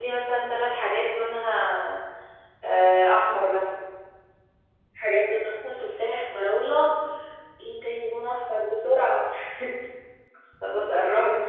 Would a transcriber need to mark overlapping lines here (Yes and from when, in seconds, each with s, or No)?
No